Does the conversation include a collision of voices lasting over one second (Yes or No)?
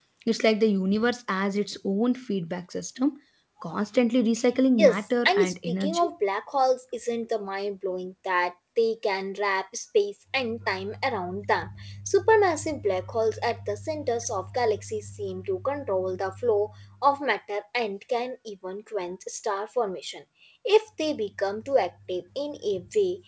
Yes